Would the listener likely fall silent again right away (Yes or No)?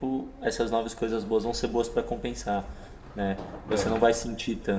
Yes